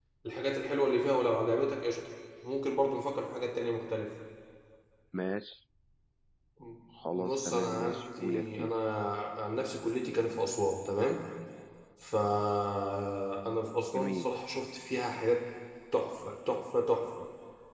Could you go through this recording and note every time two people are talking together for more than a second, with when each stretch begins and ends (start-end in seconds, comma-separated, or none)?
7.2-8.8